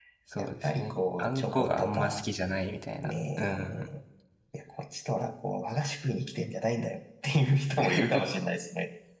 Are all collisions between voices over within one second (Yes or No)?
No